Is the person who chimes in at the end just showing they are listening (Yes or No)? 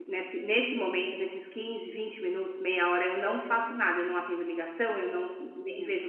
Yes